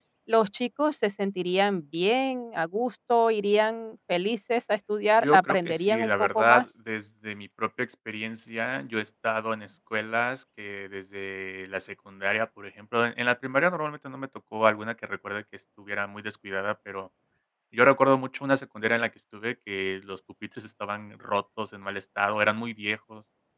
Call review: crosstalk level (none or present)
present